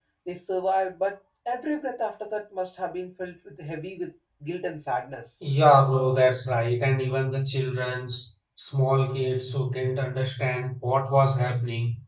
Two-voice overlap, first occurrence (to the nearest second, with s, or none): none